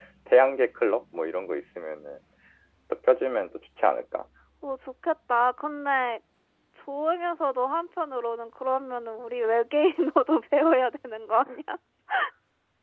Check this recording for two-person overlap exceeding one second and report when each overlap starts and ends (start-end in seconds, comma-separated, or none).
none